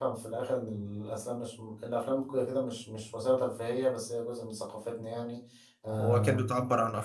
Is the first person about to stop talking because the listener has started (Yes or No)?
Yes